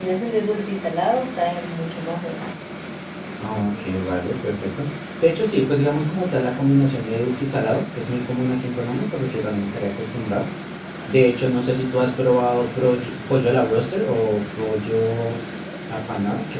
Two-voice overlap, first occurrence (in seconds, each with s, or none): none